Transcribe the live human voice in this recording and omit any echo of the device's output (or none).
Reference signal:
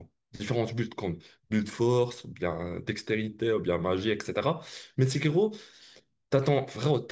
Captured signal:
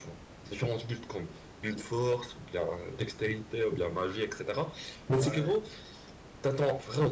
Ouais,